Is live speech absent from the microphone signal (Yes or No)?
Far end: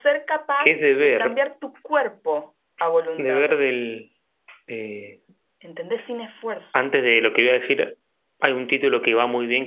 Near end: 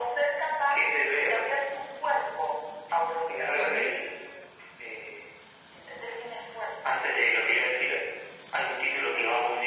No